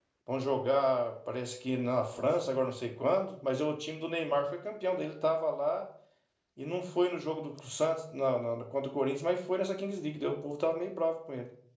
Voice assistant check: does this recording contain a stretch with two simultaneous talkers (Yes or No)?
No